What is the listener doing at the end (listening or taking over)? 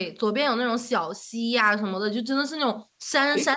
listening